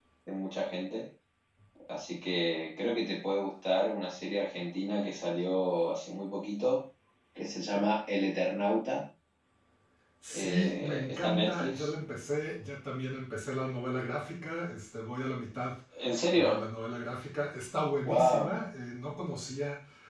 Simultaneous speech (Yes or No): Yes